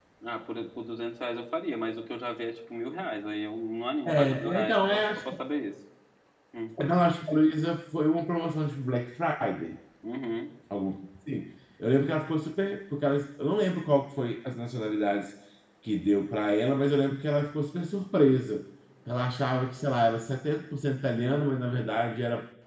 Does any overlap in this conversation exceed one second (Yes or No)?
Yes